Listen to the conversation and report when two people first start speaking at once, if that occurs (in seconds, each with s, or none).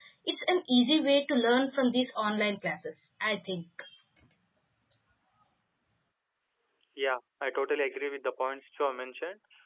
none